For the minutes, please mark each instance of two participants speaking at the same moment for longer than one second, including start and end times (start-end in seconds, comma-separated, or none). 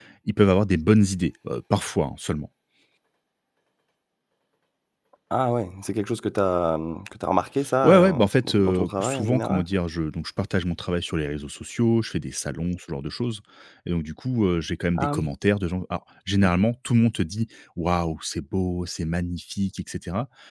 7.8-9.6